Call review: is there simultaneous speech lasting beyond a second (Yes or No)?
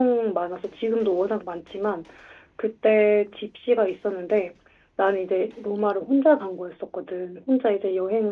No